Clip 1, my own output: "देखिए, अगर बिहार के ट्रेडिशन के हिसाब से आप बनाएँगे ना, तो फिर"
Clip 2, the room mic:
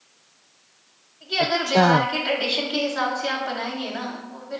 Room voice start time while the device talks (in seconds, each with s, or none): 1.4 s